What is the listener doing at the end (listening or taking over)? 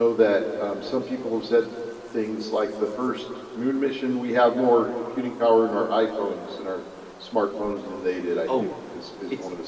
taking over